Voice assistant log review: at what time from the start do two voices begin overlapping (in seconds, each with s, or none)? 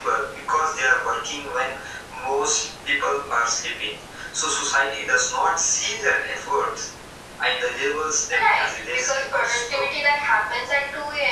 8.3 s